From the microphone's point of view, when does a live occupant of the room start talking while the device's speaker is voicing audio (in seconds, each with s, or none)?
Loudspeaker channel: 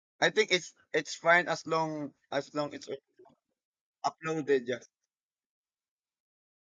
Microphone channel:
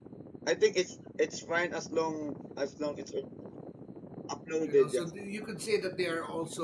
4.6 s